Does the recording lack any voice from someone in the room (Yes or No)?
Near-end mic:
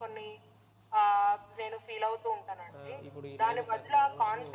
No